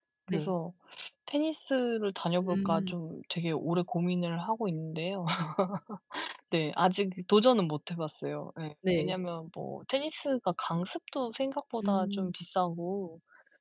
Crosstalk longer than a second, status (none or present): none